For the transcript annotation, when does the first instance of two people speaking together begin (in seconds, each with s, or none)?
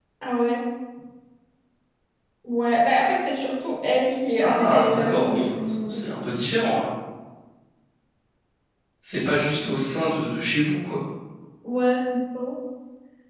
4.4 s